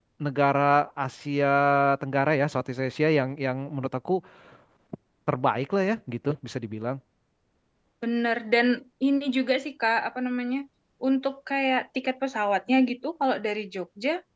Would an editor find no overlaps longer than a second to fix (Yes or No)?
Yes